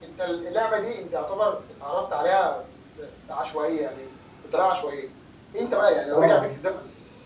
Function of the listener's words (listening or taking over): listening